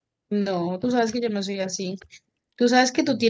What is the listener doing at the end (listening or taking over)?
listening